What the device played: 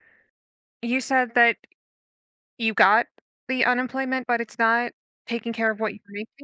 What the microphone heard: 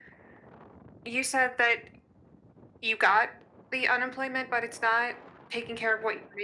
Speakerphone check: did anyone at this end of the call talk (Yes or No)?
No